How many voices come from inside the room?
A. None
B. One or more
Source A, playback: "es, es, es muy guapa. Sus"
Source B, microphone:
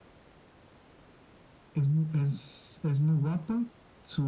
A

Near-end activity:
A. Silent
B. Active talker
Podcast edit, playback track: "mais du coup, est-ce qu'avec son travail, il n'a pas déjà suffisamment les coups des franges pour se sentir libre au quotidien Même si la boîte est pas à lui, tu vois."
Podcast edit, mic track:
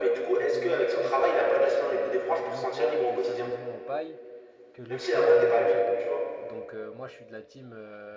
B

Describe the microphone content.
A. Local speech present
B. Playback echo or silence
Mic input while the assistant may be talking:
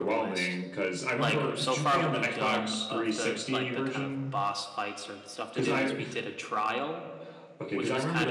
A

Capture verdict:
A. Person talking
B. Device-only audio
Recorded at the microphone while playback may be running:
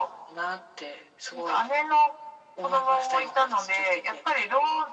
B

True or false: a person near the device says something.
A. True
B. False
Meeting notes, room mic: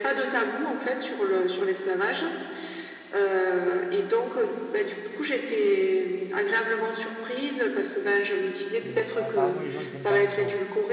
A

